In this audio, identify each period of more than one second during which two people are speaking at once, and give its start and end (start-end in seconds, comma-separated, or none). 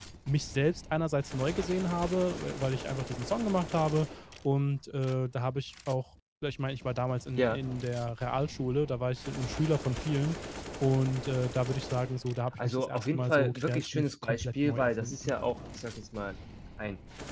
12.6-15.3